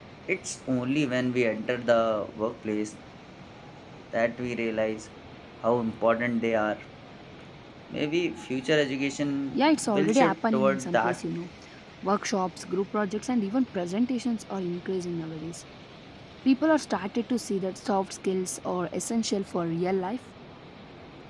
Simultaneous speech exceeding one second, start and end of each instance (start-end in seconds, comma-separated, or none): 9.5-11.2